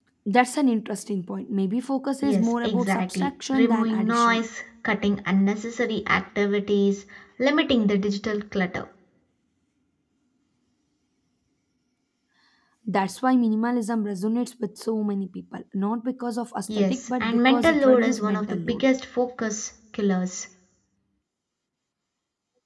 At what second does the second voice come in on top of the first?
2.2 s

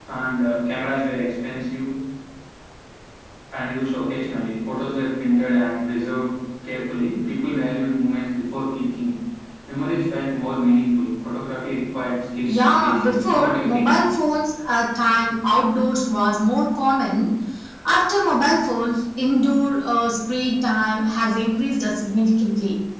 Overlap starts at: 12.5 s

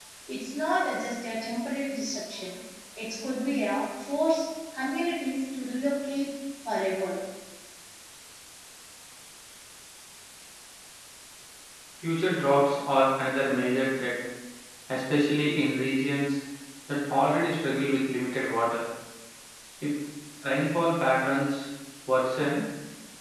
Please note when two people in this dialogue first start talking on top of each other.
none

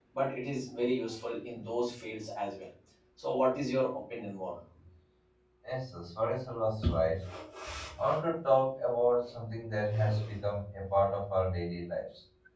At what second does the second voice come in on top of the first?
none

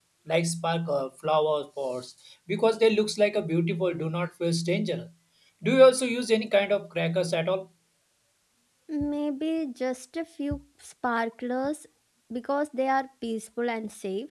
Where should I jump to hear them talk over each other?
none

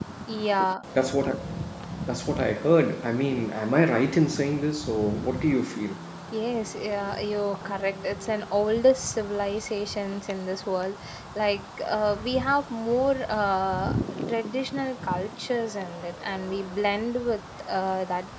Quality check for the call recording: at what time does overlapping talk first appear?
none

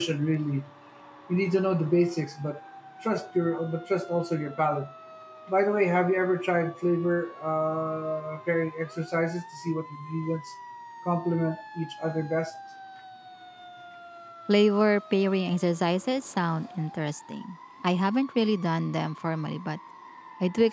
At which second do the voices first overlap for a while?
none

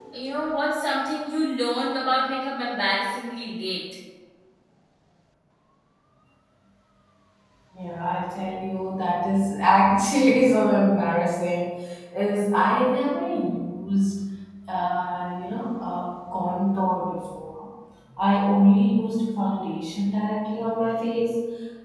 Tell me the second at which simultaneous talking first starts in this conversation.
none

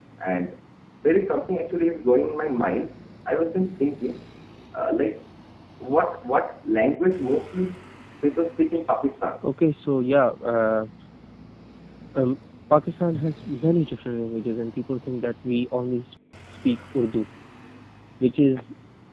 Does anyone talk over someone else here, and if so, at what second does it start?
none

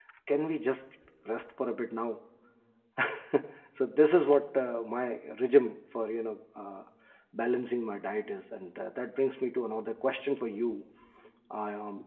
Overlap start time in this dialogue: none

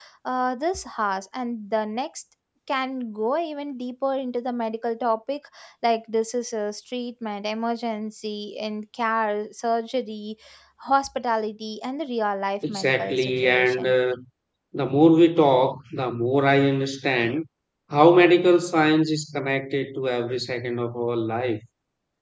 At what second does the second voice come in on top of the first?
12.6 s

